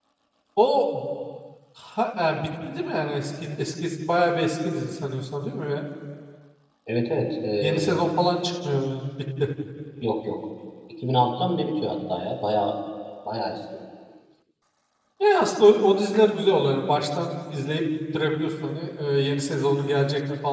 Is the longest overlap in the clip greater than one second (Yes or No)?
No